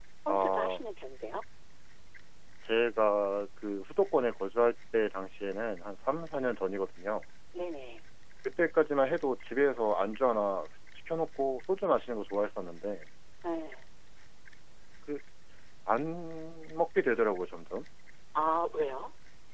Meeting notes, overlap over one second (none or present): none